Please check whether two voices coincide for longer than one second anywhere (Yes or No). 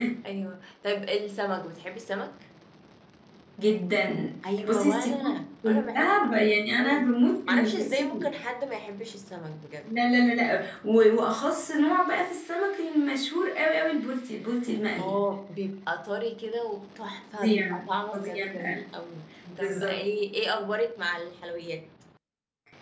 Yes